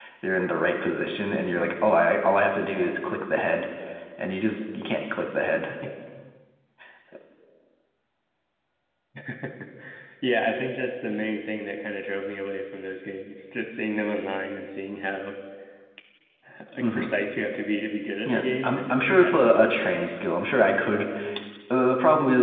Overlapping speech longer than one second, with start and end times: 18.2-19.8

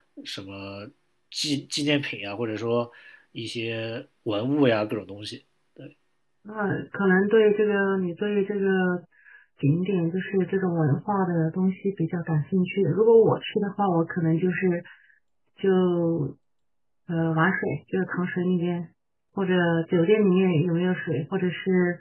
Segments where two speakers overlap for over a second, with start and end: none

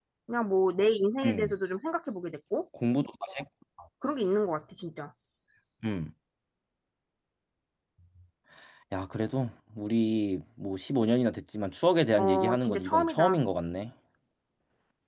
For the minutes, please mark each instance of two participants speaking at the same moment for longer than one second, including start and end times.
12.2-13.4

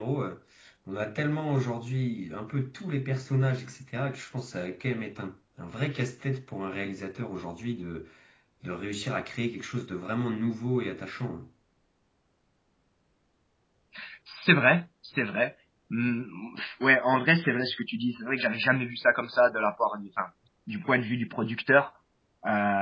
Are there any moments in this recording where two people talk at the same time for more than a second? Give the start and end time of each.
none

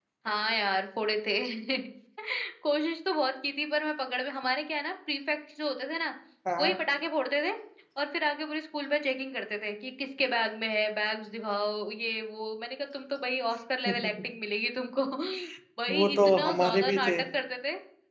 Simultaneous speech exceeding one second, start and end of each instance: 15.9-17.1

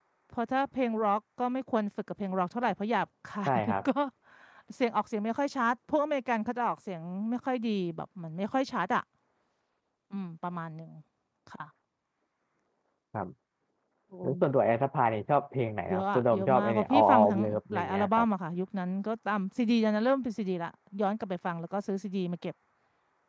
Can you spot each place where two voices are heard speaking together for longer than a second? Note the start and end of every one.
15.9-18.3

